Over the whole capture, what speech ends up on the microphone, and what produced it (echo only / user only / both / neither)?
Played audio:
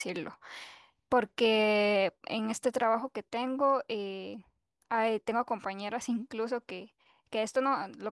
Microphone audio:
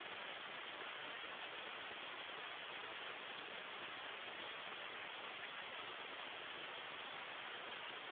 neither